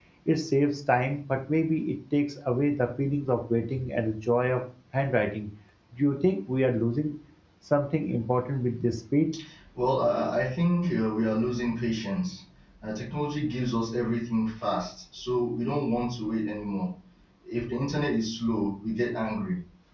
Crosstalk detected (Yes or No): No